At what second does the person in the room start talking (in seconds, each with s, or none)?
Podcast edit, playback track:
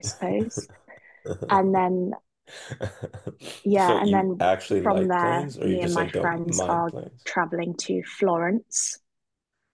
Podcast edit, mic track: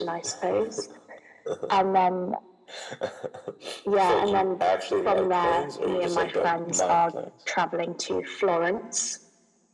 none